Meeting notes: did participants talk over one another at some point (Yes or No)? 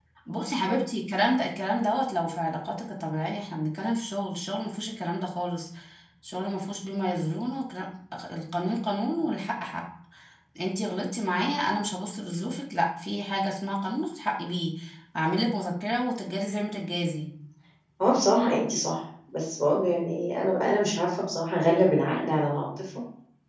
No